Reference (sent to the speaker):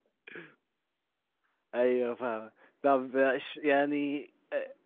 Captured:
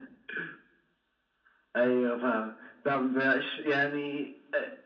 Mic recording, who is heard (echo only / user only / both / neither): echo only